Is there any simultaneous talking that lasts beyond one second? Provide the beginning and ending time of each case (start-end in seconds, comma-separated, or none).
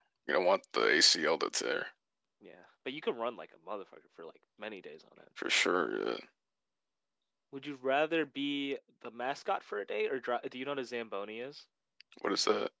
none